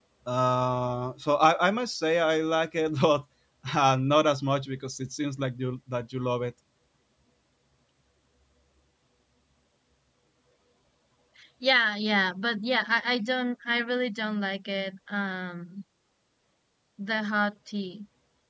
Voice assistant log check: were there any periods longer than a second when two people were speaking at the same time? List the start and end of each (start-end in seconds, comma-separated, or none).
none